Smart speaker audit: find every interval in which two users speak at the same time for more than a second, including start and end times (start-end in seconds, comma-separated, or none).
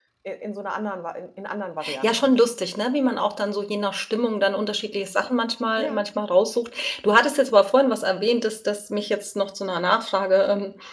none